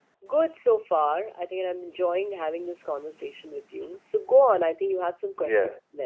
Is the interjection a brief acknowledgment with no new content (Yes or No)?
No